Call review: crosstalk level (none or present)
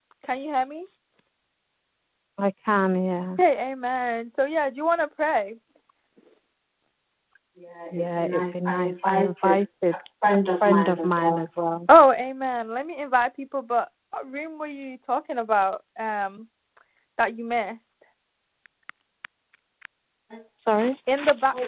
present